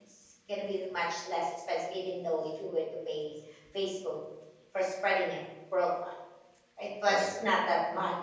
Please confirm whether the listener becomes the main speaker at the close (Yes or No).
No